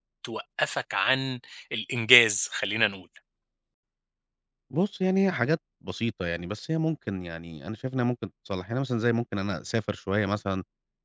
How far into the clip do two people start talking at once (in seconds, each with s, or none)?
none